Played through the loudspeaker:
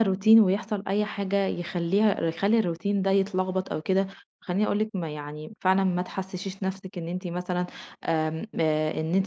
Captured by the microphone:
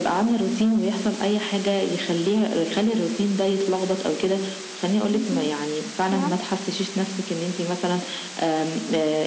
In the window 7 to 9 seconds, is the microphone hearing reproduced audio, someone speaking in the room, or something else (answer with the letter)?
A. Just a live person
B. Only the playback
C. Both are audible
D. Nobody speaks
B